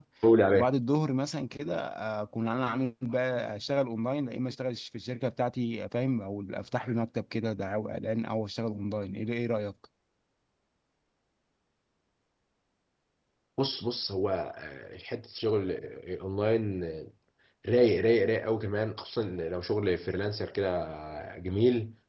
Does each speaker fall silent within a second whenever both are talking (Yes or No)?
Yes